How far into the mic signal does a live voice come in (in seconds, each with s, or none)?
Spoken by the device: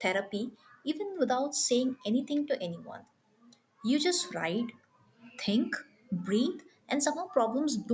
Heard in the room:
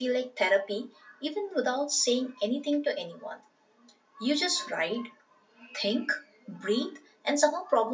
none